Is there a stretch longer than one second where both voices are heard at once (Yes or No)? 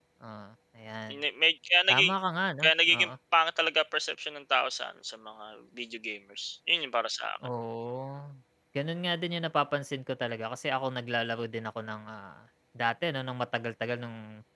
No